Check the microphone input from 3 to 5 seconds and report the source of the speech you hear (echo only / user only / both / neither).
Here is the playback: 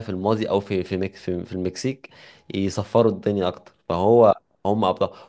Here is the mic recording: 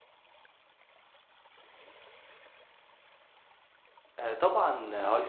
user only